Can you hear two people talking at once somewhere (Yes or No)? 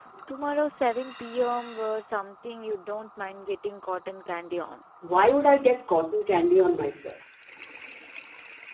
No